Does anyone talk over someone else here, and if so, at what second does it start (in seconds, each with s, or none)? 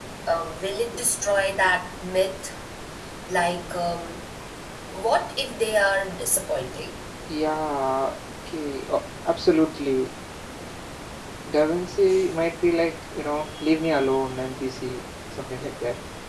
none